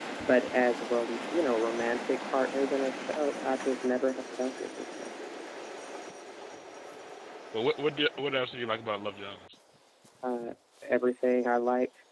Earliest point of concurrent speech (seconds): none

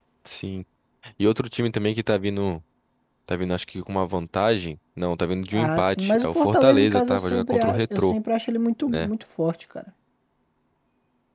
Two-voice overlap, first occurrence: 5.5 s

